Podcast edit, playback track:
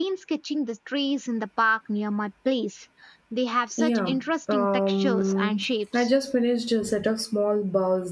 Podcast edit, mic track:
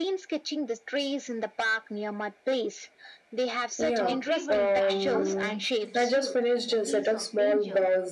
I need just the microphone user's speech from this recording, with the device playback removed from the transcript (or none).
Her bravery and commitment to the truth in the face of danger